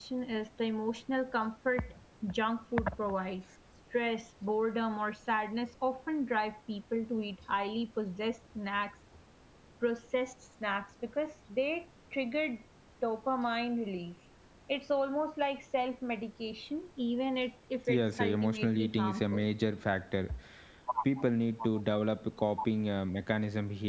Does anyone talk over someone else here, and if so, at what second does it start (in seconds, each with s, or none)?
17.9 s